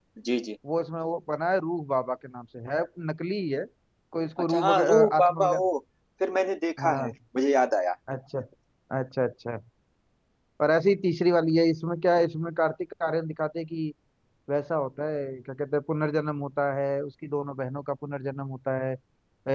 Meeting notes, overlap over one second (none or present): present